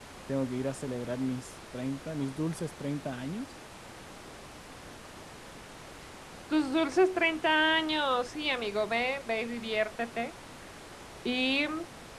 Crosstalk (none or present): none